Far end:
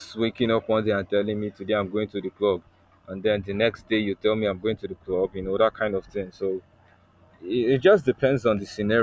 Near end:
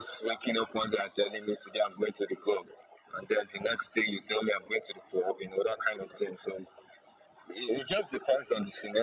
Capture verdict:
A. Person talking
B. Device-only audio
B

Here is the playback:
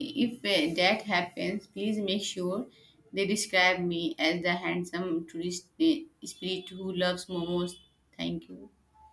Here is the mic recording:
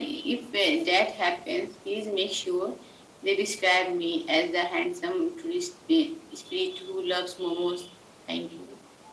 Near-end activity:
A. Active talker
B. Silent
B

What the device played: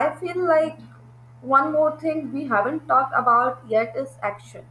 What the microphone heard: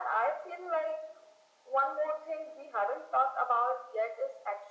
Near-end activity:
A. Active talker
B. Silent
B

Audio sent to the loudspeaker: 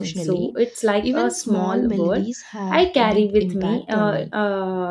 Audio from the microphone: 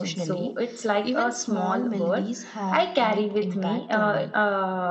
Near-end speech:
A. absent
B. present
A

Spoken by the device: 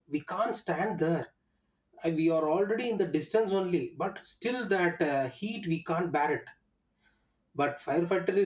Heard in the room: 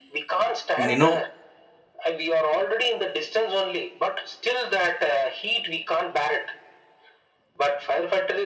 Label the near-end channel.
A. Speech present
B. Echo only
A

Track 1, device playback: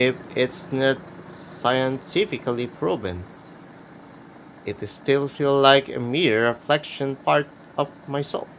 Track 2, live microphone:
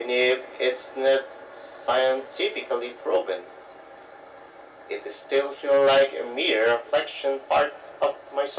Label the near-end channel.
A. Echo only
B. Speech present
A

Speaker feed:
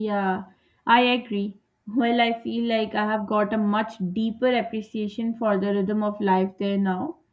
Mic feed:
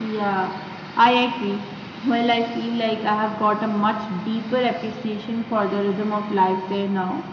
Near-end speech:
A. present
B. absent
B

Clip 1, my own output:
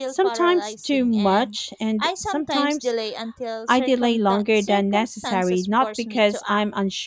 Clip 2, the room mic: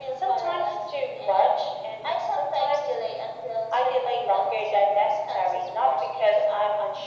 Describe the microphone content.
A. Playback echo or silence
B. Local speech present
A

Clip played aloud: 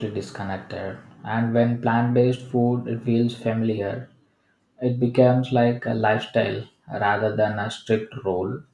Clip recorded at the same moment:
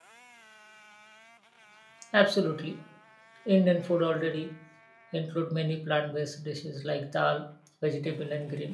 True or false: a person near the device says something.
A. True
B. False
A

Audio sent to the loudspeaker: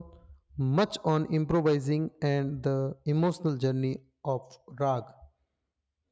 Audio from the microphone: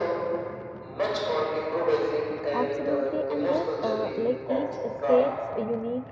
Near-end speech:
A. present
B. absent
A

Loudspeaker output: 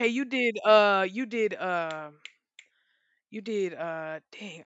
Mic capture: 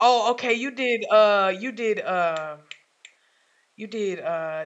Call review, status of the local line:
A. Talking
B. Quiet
B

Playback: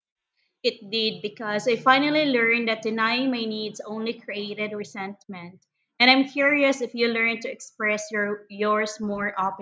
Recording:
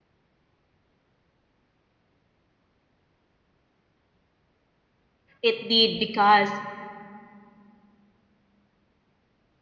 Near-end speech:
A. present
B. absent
A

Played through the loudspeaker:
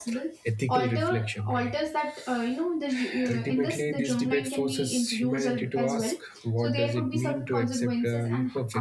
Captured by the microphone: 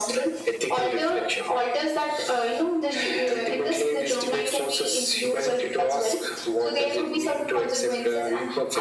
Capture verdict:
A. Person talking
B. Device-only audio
B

